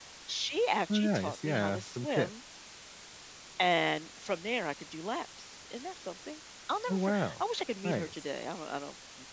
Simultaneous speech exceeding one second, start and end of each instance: 0.9-2.3

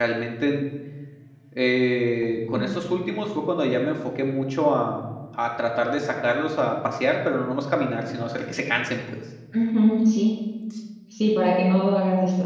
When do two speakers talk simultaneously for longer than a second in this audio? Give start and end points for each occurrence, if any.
none

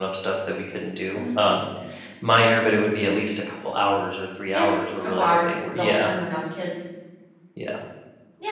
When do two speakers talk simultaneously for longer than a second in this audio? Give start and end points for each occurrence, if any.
4.5-6.1

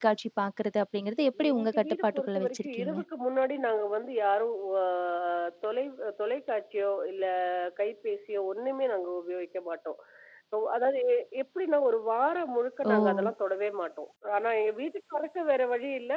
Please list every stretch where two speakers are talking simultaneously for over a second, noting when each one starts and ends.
1.5-3.0

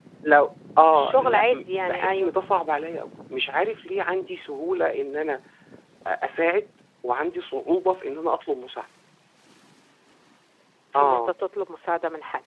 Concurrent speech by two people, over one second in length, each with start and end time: 0.8-2.3

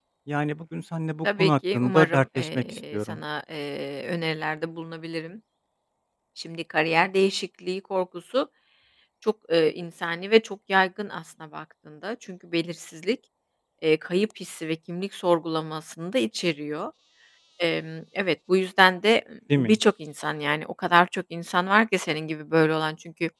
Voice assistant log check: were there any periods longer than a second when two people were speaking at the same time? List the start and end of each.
1.2-3.2

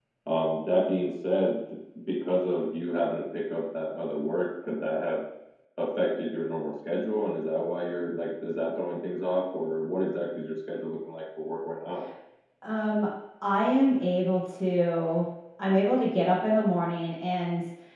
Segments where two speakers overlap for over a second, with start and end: none

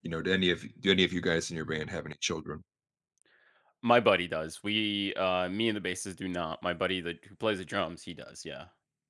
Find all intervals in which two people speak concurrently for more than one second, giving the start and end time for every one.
none

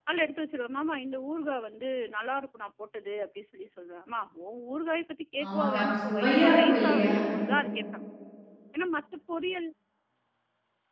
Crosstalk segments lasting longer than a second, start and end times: 5.4-7.1

